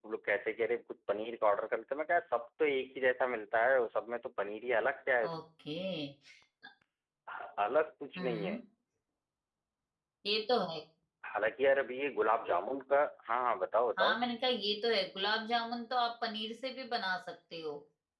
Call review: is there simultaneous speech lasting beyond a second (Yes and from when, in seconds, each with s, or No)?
No